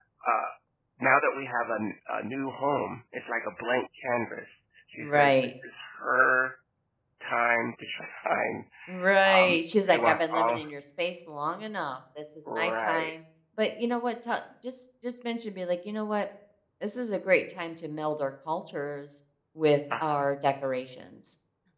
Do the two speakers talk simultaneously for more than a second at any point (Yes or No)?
Yes